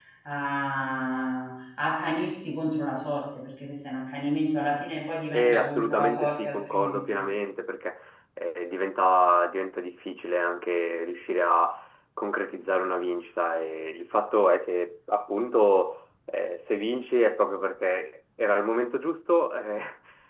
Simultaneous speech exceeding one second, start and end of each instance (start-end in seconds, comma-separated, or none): 5.3-7.0